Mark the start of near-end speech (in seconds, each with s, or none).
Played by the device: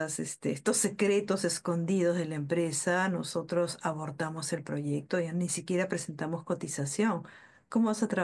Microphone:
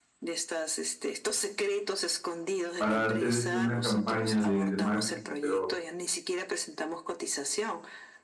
2.8 s